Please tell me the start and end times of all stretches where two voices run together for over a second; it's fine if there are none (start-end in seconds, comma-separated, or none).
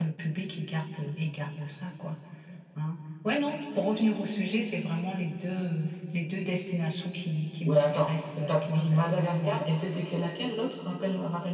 7.7-9.7